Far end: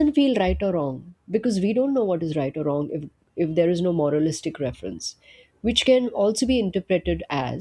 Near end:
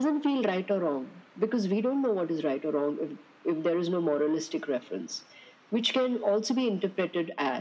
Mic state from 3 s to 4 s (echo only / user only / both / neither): echo only